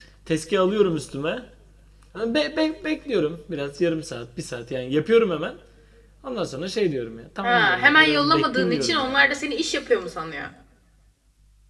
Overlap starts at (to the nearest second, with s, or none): 7 s